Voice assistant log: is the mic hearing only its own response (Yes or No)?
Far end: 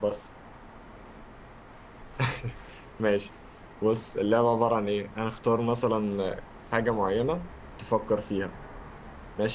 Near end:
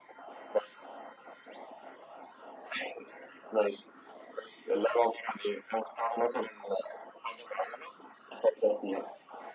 Yes